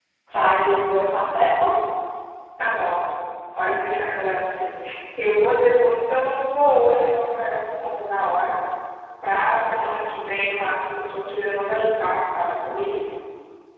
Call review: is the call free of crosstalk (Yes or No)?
Yes